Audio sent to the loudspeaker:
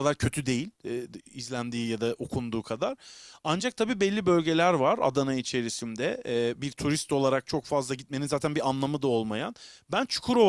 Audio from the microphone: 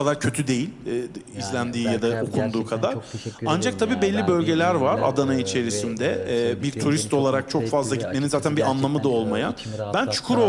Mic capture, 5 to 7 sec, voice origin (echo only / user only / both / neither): both